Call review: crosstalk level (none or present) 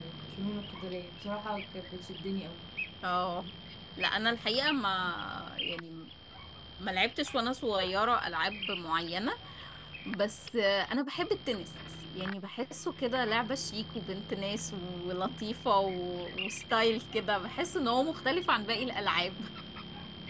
none